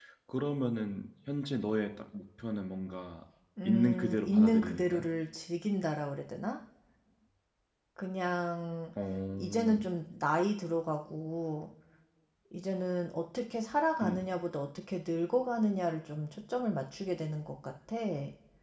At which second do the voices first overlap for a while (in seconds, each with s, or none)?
3.6 s